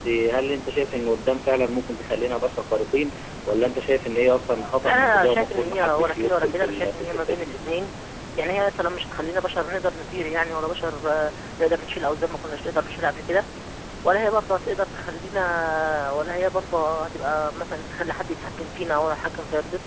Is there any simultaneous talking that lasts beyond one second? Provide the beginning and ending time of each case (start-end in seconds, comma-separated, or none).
4.8-7.4